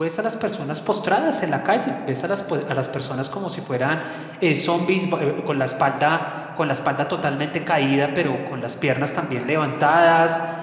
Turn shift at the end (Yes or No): No